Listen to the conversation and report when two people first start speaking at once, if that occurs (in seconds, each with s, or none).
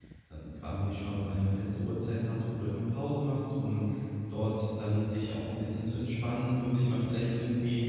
none